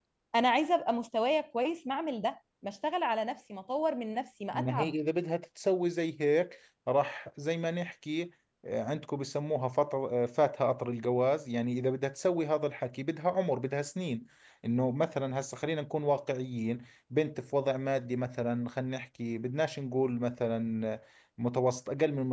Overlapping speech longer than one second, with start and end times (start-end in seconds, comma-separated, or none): none